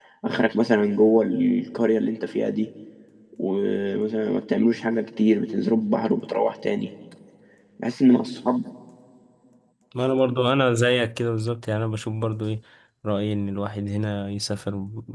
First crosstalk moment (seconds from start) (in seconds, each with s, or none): none